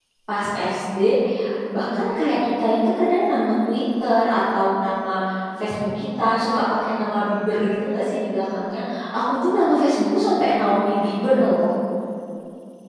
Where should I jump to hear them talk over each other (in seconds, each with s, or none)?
none